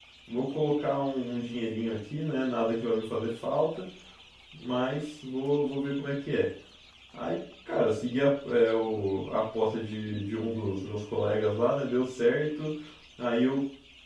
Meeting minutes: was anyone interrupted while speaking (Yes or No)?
No